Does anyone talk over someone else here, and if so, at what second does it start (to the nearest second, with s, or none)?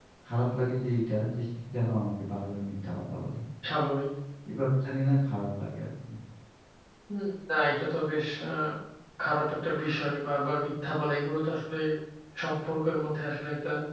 none